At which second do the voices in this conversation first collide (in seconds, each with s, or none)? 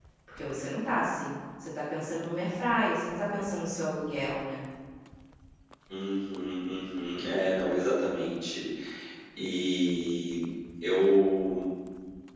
none